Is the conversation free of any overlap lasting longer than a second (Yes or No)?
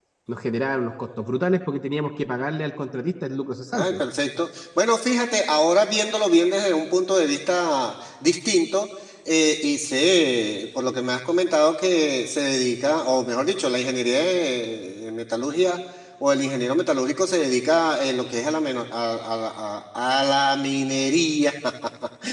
Yes